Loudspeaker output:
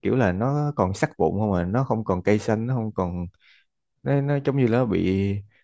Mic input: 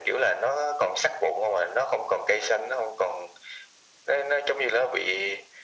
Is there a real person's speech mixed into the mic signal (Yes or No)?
No